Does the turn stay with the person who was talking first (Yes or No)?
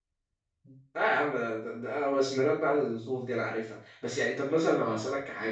Yes